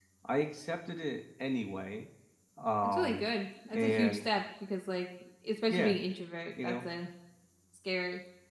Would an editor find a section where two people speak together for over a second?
No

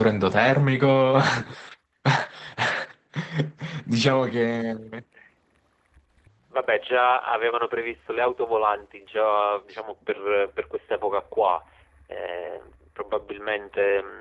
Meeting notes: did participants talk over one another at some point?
No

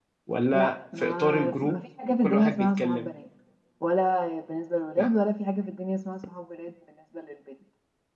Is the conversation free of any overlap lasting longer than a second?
No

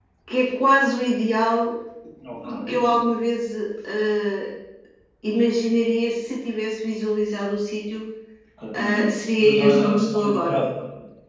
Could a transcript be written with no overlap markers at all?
No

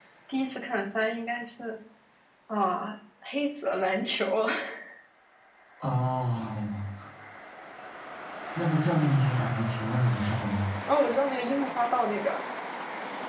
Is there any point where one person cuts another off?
No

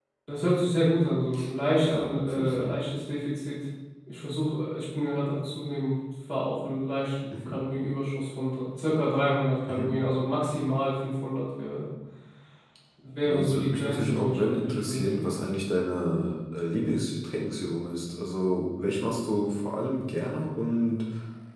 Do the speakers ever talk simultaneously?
Yes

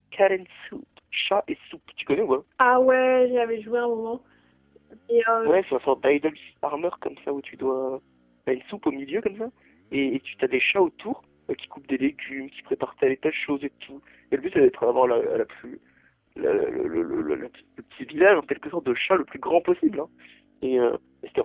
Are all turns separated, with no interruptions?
Yes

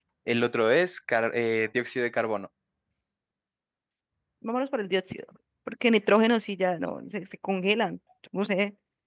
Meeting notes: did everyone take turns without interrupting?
Yes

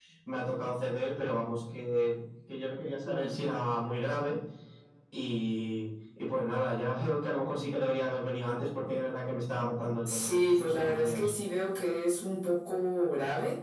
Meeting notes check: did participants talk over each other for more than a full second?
Yes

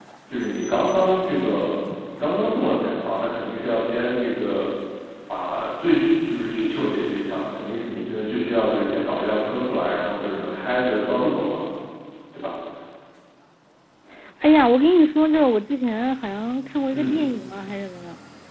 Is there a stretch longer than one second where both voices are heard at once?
No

